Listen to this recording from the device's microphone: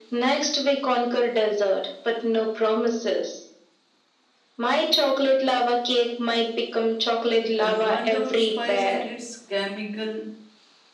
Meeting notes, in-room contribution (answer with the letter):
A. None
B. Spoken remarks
B